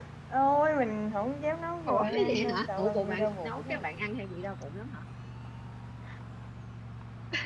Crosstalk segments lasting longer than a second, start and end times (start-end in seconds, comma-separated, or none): 1.9-3.8